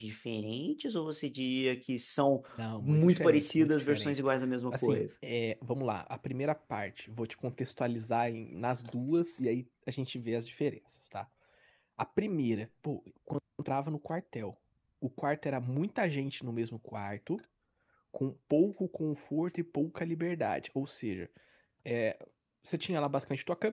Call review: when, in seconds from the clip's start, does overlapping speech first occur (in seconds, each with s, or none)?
2.8 s